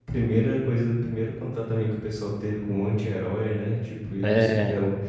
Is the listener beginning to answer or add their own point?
No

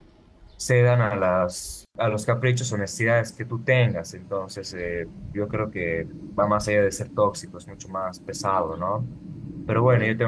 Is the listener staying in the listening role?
Yes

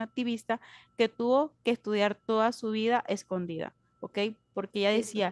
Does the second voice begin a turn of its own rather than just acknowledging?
No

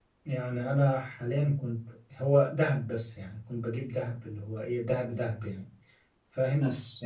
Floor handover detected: No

